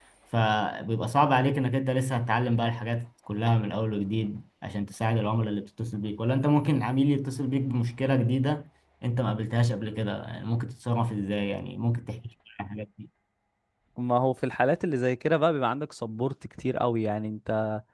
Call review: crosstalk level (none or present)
none